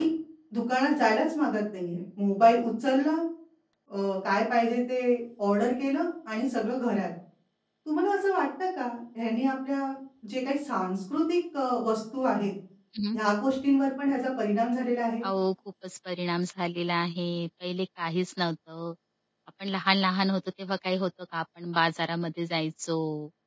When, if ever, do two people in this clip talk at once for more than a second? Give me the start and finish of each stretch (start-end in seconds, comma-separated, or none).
none